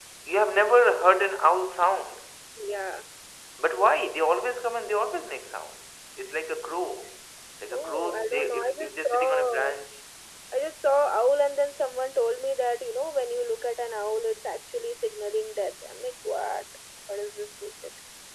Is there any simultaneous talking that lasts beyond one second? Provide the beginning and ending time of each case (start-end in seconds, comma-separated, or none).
7.7-9.7